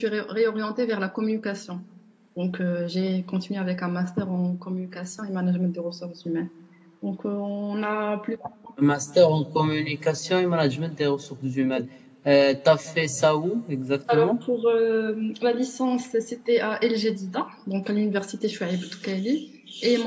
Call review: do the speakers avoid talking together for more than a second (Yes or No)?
Yes